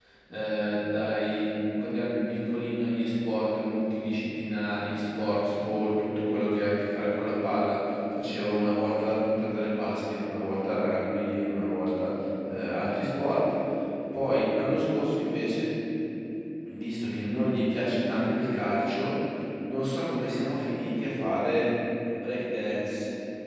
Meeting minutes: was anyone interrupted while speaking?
No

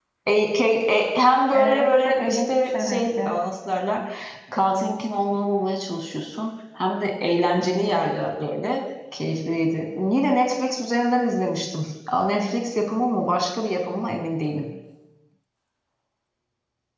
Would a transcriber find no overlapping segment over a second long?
No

